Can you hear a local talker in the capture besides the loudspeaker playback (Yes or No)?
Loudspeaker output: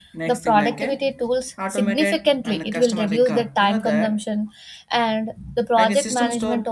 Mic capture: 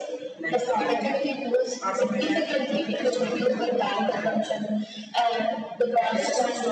No